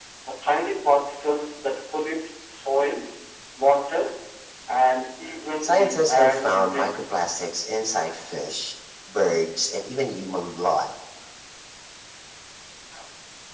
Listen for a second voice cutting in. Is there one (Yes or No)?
Yes